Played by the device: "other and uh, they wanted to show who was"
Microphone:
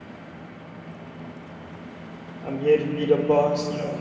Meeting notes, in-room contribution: present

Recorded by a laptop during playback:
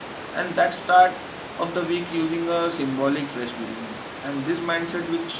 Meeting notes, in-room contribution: present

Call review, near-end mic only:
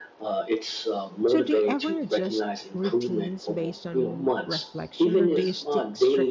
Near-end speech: present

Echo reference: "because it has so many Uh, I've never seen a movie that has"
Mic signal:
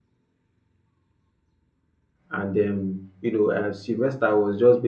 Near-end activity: present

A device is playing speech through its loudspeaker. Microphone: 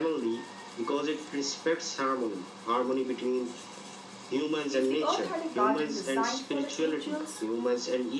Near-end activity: present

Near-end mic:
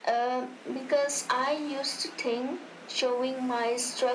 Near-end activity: none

